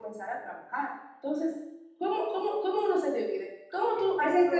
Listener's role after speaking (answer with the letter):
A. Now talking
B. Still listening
A